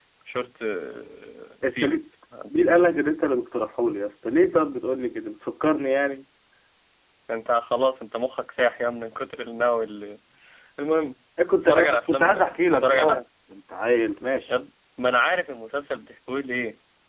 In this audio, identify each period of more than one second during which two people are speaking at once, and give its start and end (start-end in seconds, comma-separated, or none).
11.6-13.2